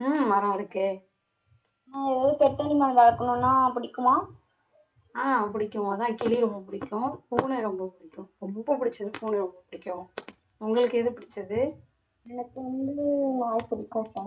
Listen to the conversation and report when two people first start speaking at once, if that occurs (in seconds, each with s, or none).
none